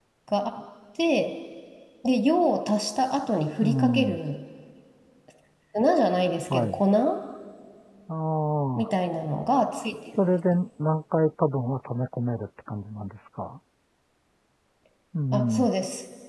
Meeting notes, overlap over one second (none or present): none